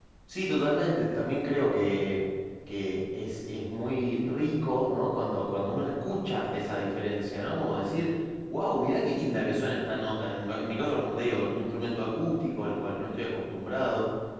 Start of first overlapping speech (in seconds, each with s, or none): none